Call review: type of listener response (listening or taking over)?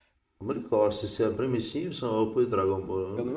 taking over